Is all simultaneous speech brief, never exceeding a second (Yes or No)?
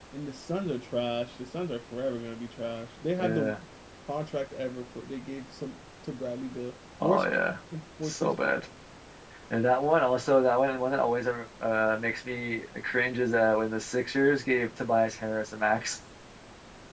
Yes